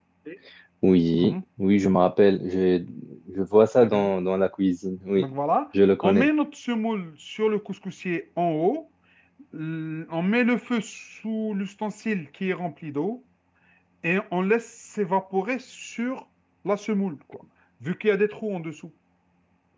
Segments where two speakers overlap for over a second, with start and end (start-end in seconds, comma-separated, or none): none